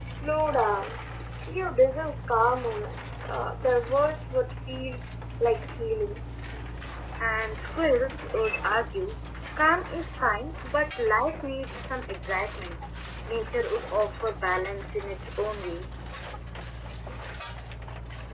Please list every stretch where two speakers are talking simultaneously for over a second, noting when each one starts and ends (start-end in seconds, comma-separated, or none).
none